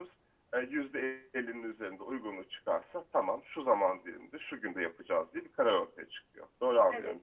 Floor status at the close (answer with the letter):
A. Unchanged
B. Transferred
B